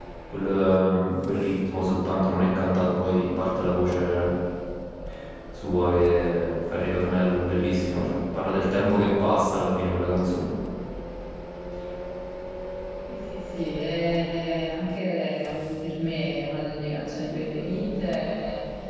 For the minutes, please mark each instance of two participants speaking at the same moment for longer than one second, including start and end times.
none

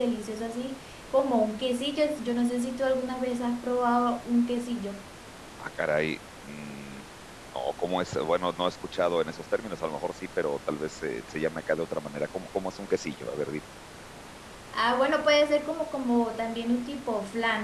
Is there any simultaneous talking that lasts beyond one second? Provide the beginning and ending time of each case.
none

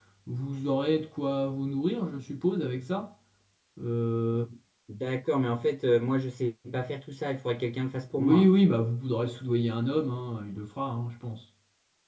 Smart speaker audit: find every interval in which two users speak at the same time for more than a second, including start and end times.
none

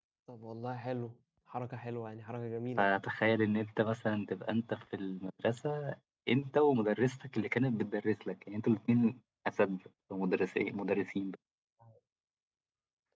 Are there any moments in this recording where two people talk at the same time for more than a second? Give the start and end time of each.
none

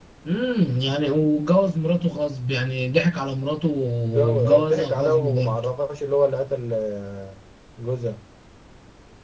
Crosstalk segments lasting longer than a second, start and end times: 4.1-5.6

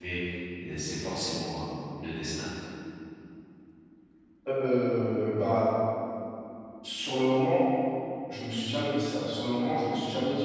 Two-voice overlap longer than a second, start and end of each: none

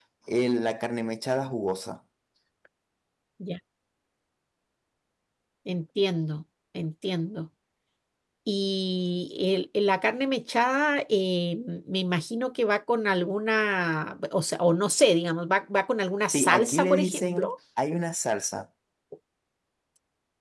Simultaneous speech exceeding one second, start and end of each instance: 16.3-17.5

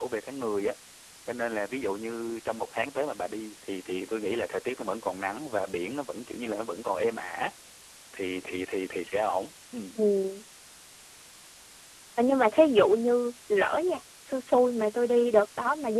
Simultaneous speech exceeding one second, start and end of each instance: none

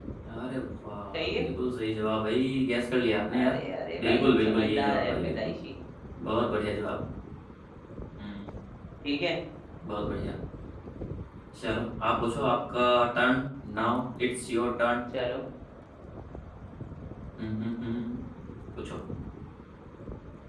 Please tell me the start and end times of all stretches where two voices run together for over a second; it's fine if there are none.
4.0-5.5

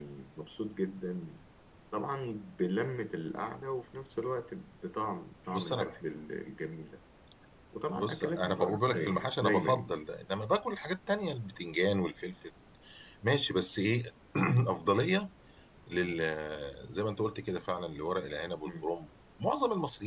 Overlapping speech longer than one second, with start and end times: 8.0-9.9

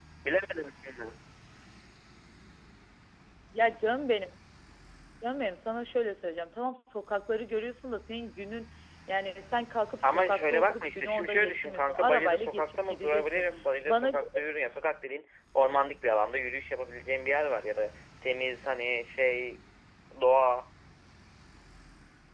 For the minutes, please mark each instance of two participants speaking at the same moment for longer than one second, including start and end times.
10.0-13.2

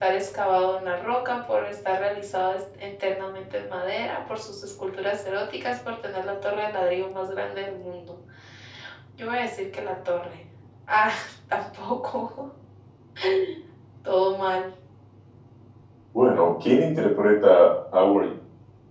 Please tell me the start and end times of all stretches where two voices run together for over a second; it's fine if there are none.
none

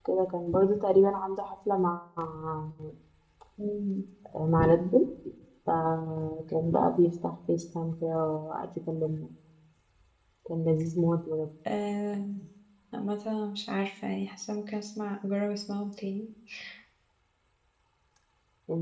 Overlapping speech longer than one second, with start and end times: none

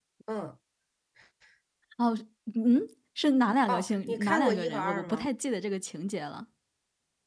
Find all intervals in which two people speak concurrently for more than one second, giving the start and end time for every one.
3.7-5.2

